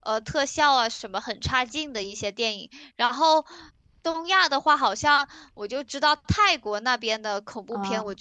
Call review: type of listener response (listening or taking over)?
listening